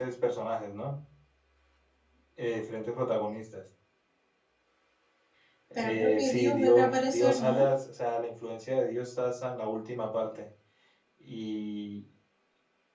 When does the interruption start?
5.8 s

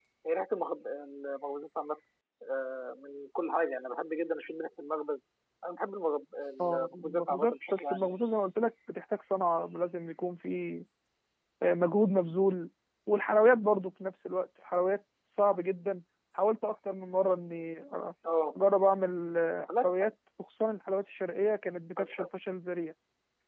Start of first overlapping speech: 6.6 s

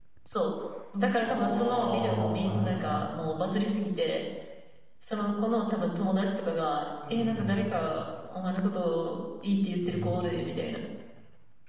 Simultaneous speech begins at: 1.2 s

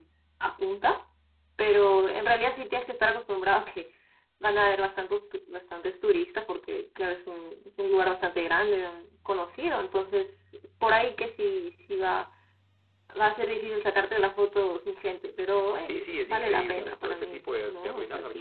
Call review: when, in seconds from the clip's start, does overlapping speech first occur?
15.8 s

